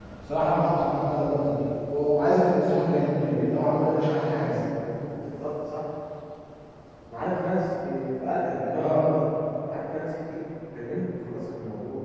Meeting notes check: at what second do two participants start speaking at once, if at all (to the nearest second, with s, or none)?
3 s